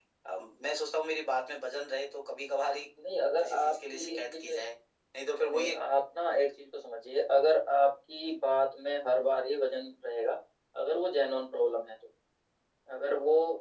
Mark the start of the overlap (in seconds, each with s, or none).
3.4 s